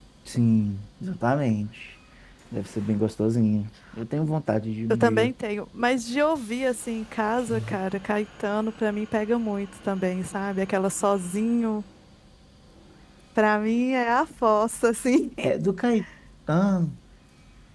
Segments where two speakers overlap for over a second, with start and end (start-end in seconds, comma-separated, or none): none